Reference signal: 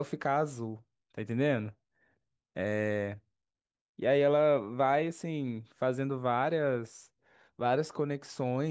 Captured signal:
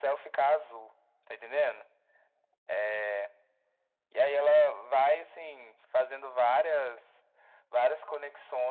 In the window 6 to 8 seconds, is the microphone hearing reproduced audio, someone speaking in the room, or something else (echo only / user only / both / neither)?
echo only